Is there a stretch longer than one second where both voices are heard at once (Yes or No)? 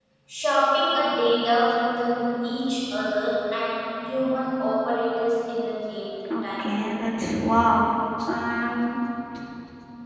No